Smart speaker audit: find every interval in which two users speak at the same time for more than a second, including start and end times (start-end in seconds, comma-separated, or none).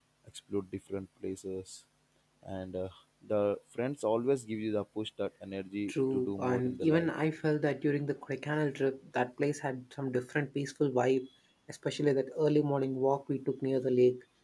5.9-7.1